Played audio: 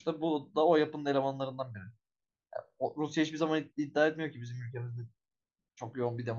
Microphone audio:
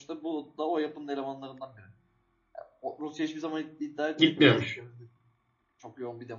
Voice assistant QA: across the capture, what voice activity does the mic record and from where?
both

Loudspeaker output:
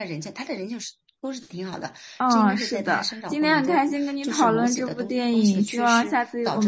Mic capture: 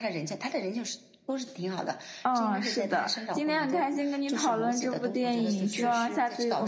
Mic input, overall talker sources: both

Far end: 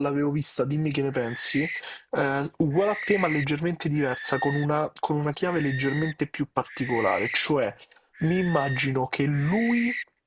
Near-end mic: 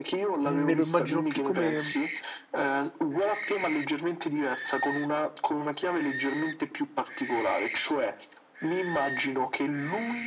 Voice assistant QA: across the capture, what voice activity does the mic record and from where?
both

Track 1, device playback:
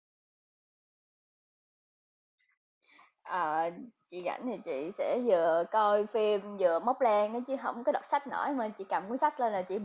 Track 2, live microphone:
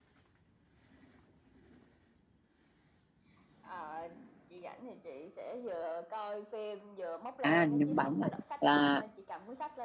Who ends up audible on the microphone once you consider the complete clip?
both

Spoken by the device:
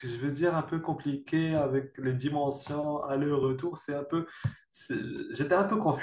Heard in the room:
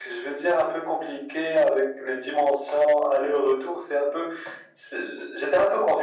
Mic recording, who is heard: echo only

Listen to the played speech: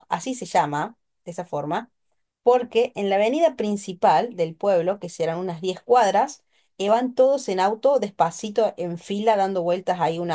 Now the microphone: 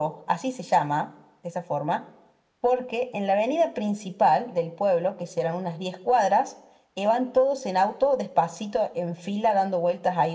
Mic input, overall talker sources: echo only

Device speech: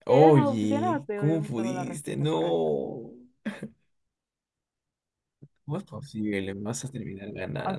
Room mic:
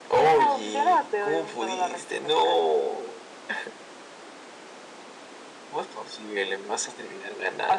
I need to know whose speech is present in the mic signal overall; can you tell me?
echo only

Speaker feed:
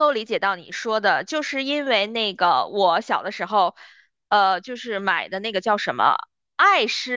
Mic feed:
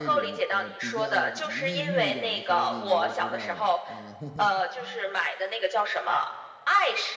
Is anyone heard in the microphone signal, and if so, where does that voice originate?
both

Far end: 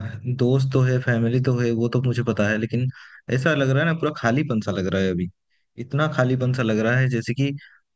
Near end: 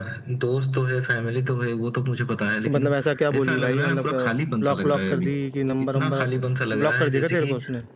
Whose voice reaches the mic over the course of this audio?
both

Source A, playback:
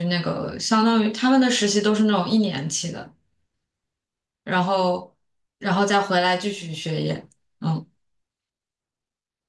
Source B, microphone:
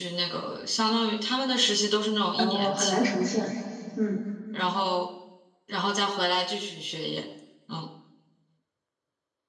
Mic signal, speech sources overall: both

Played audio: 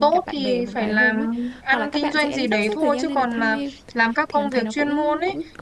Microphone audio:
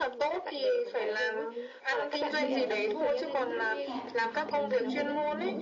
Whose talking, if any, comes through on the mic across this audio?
both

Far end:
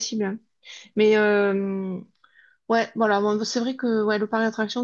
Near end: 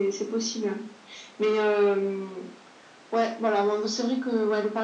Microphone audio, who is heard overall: echo only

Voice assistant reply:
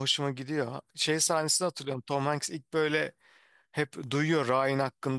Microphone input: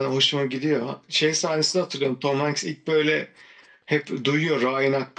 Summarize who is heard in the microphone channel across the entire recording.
echo only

